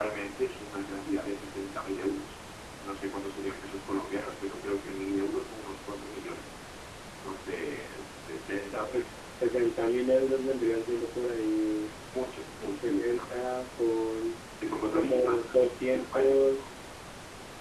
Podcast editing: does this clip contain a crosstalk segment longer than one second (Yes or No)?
Yes